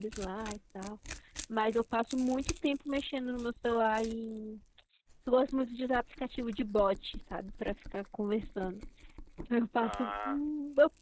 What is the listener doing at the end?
listening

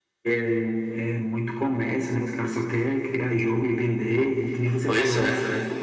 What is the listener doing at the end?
listening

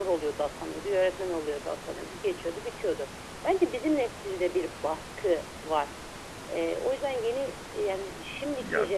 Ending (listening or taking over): listening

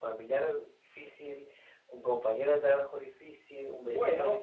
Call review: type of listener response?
taking over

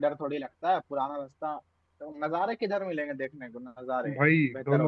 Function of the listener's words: taking over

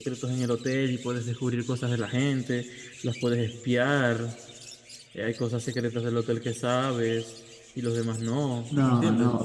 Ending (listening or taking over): taking over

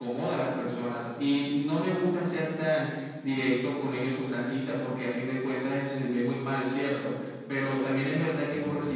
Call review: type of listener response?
listening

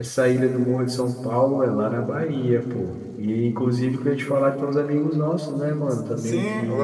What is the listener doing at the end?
taking over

